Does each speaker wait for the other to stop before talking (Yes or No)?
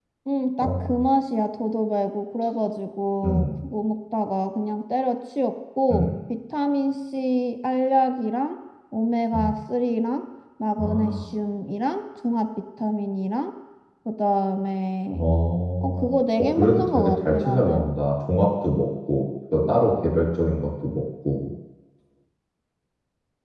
No